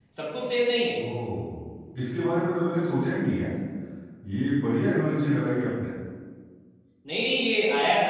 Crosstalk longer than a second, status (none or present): none